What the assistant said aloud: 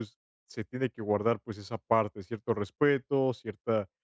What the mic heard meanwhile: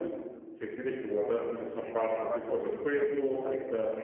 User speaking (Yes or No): Yes